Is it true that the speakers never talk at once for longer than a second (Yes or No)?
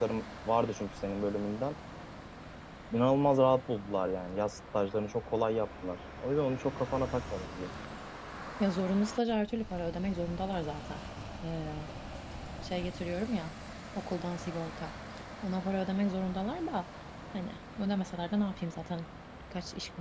Yes